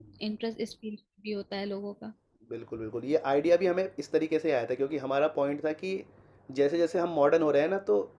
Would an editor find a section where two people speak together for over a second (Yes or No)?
No